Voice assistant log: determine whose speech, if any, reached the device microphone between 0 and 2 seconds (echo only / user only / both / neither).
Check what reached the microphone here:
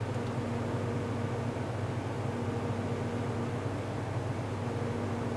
neither